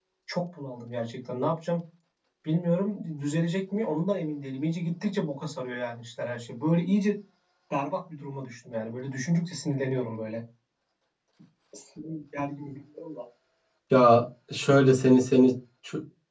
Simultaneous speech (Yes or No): No